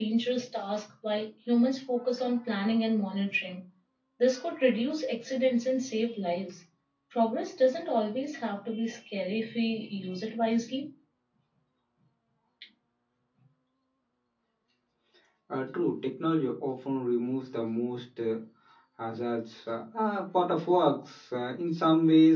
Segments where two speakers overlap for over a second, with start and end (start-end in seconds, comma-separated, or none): none